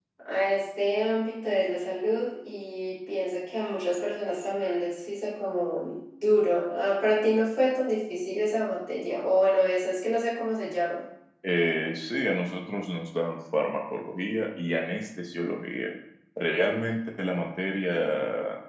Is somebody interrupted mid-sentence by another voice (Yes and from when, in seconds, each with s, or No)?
No